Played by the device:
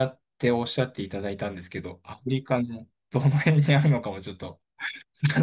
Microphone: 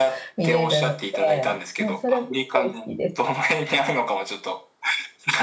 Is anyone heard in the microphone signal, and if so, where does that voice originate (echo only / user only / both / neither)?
both